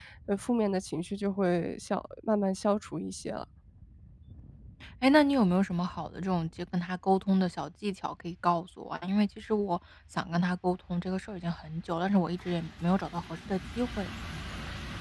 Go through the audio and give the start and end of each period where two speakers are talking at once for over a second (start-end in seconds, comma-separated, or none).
none